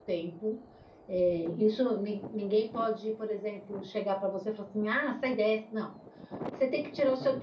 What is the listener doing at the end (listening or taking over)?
listening